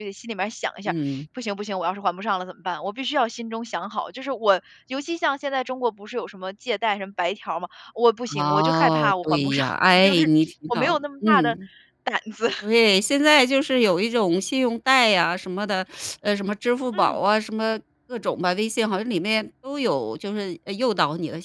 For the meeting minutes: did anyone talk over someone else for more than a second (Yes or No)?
Yes